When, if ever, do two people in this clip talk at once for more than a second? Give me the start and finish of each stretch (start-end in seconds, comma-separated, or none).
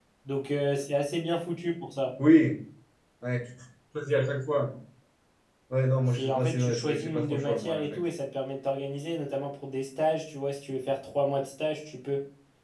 6.1-7.8